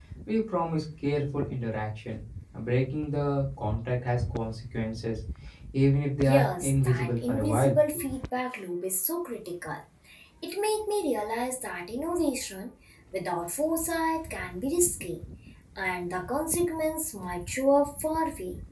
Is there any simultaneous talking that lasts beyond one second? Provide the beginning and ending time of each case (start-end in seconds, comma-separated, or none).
6.2-7.7